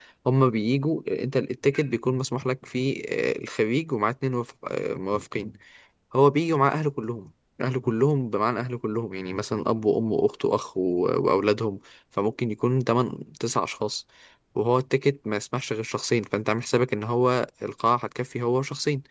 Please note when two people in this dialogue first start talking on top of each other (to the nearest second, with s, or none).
none